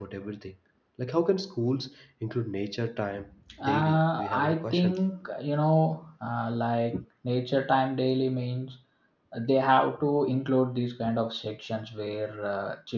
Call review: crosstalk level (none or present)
present